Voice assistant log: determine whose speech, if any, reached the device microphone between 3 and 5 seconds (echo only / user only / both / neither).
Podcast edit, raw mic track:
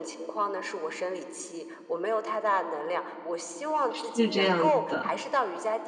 both